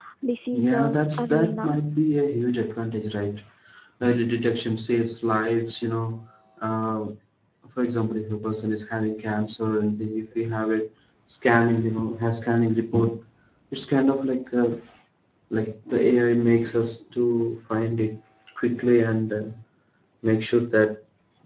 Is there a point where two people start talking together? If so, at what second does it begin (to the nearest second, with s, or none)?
1 s